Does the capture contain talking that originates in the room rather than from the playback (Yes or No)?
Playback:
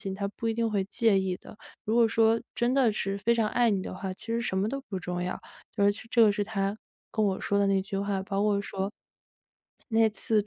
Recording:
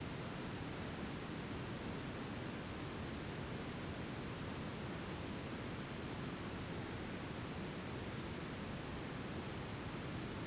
No